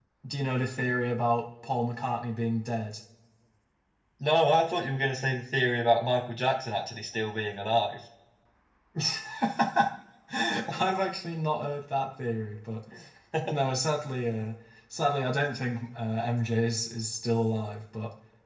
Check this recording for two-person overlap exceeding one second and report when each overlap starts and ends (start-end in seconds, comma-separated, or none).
none